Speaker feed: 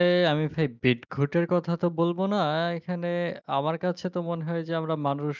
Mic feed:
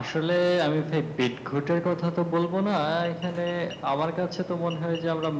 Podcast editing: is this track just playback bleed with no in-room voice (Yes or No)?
Yes